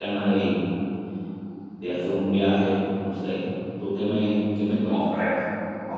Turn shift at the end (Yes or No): Yes